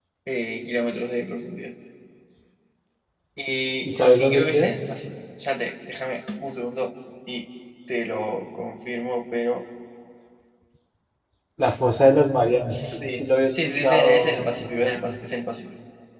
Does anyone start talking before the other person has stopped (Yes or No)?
Yes